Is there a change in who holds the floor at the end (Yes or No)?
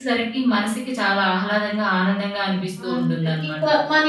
Yes